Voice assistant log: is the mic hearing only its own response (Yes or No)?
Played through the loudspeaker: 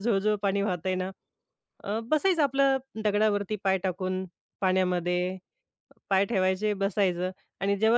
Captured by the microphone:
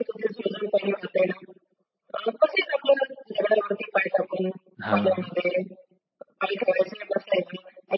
No